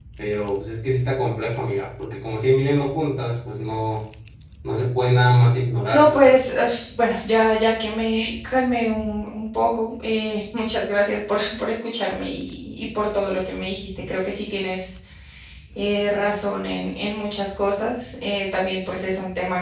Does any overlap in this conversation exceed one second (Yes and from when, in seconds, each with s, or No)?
No